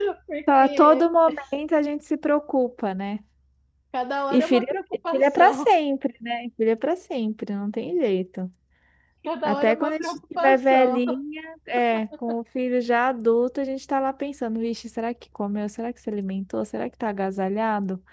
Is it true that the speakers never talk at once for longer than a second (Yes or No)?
No